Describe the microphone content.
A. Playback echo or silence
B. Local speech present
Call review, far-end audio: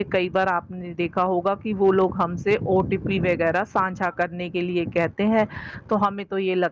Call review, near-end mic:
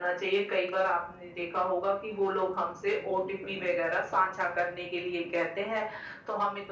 A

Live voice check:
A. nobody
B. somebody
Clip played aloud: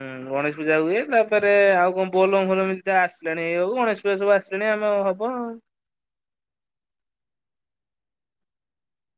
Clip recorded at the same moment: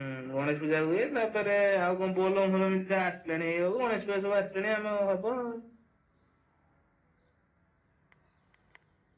A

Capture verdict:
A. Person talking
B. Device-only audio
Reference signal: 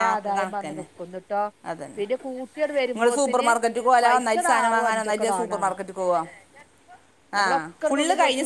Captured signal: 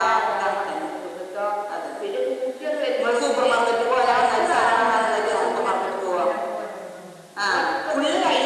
A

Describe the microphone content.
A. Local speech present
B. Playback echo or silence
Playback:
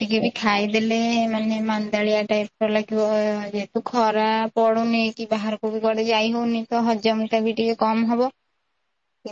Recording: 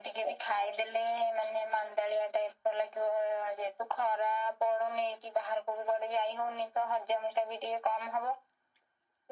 B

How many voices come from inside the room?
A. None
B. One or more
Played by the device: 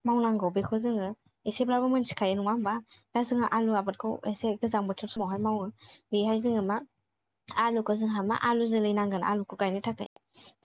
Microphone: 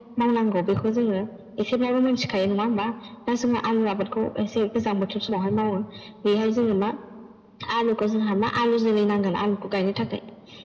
A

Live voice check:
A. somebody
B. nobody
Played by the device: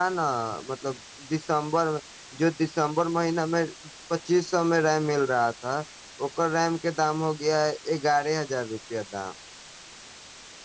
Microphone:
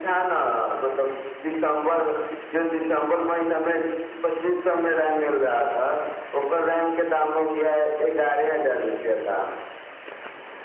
B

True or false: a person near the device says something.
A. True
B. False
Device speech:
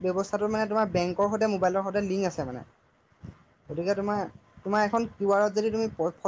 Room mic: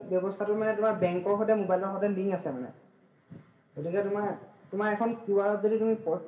B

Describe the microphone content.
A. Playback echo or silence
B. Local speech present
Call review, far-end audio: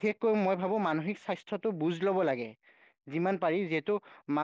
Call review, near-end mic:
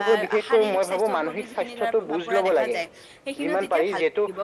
B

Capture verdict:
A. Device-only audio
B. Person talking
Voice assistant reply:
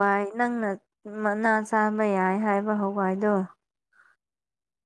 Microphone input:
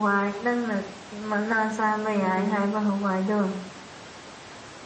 B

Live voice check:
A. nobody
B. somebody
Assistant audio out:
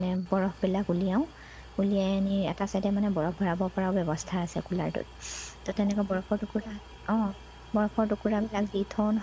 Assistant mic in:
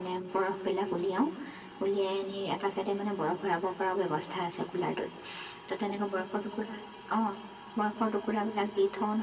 A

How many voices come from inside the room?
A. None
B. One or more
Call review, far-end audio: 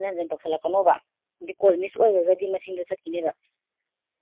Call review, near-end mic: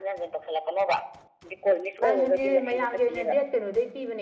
B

